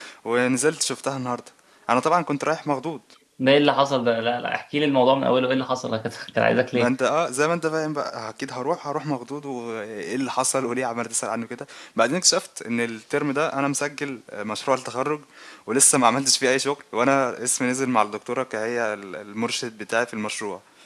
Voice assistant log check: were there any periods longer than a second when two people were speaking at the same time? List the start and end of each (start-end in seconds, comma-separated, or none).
none